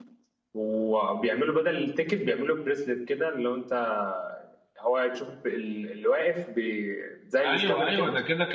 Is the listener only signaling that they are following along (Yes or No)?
No